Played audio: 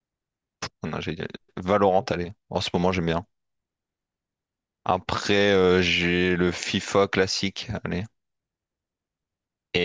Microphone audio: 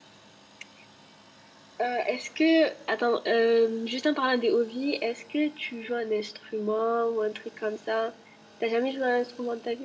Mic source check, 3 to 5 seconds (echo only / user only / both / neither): user only